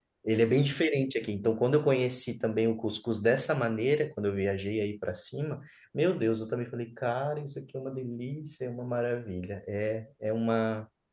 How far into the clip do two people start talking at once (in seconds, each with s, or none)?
none